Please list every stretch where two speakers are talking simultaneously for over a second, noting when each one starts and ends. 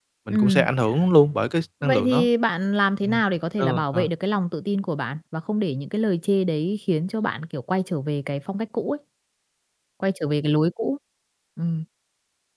none

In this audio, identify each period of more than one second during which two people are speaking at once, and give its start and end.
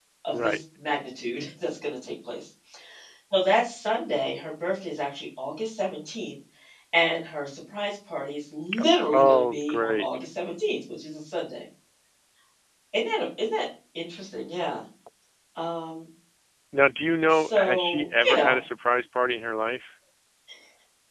8.8-10.1, 17.3-18.6

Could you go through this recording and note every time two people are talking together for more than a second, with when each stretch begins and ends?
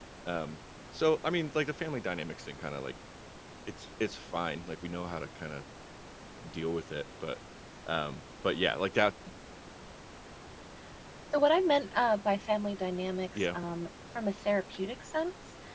none

